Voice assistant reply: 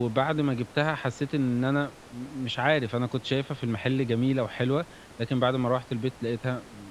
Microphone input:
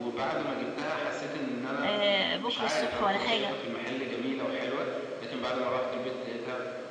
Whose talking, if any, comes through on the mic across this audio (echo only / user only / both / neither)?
both